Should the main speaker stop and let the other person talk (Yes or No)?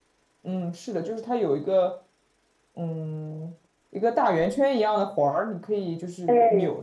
Yes